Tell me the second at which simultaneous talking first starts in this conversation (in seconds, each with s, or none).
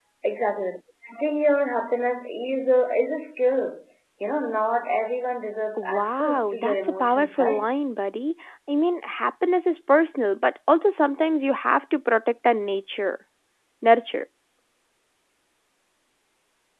5.8 s